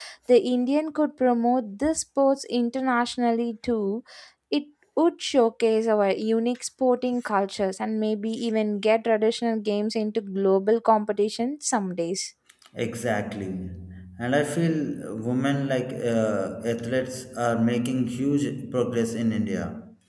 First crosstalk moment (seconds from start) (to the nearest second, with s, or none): none